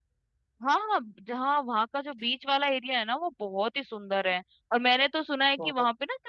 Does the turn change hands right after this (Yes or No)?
No